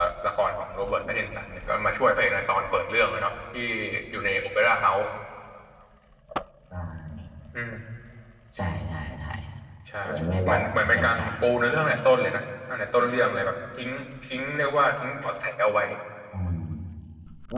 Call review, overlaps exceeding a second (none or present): present